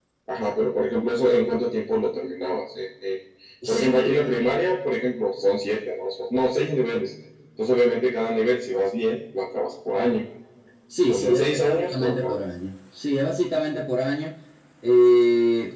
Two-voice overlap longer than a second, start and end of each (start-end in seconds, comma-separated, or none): 11.1-12.4